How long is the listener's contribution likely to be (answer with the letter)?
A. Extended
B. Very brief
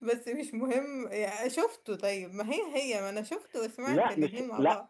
A